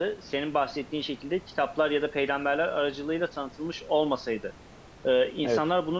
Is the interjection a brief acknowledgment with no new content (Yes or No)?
Yes